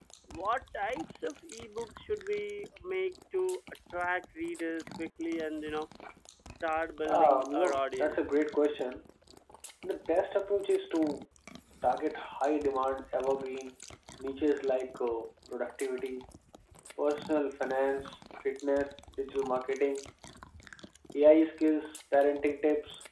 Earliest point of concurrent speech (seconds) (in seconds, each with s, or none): 7.0 s